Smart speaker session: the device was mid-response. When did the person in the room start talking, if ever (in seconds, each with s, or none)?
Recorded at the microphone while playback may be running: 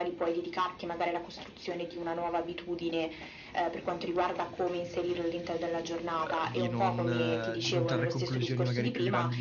6.2 s